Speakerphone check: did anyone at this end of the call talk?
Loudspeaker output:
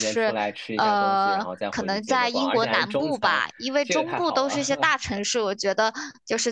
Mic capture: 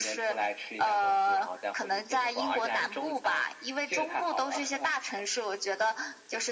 No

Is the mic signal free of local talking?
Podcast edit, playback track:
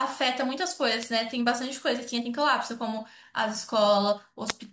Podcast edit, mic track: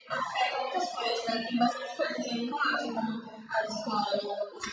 Yes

